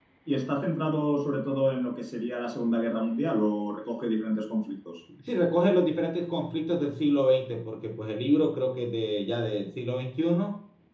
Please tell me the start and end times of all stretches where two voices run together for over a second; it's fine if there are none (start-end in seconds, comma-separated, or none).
none